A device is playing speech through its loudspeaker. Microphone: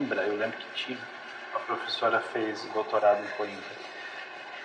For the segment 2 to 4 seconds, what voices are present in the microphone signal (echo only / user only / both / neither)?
echo only